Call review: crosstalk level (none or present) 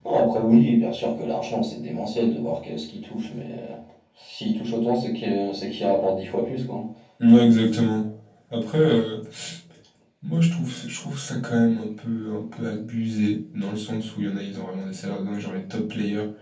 none